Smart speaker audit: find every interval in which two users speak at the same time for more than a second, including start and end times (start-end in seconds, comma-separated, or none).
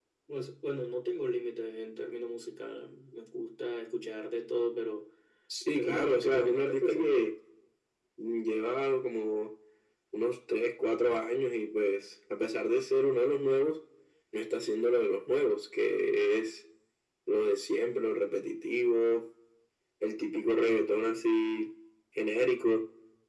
5.8-7.2